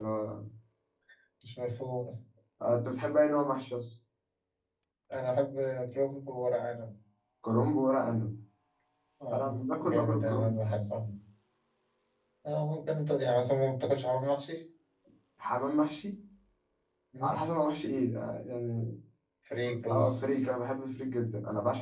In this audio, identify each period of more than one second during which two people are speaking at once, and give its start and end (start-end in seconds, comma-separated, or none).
9.3-10.9